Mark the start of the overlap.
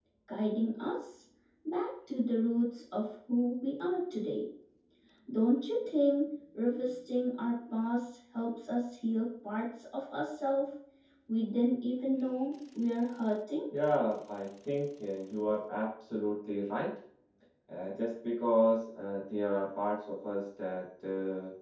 none

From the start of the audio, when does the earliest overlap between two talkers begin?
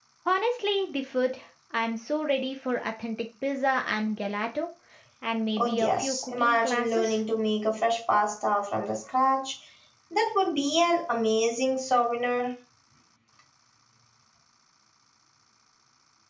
5.6 s

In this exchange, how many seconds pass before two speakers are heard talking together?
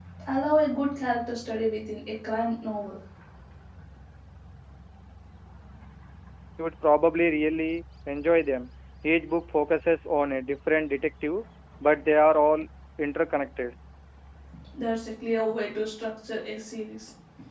none

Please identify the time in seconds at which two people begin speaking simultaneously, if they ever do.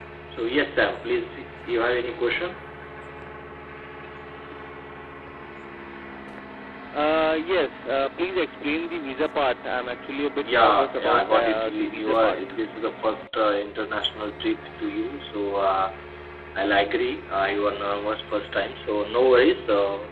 10.4 s

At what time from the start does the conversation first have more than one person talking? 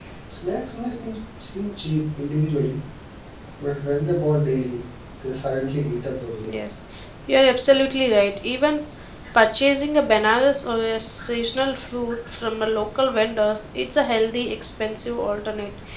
none

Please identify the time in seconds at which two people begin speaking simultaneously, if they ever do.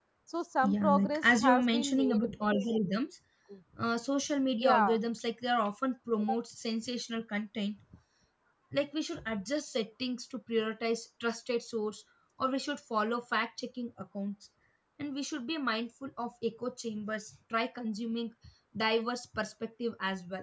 0.6 s

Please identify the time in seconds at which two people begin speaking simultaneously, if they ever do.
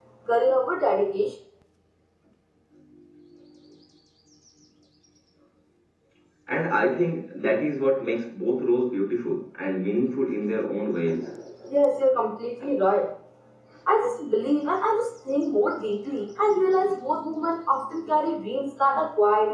none

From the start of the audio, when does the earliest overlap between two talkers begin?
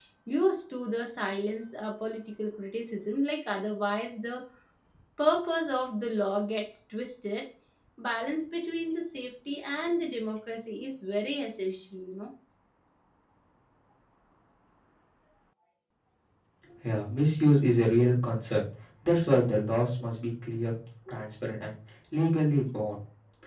none

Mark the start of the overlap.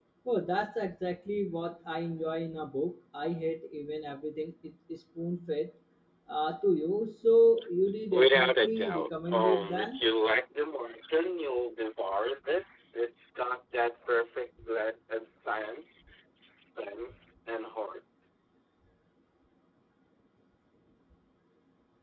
8.1 s

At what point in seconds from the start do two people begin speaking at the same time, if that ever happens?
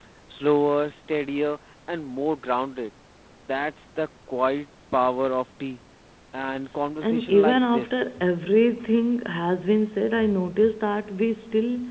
7.0 s

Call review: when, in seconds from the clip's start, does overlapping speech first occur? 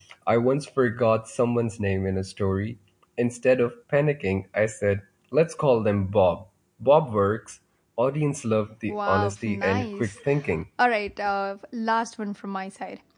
8.9 s

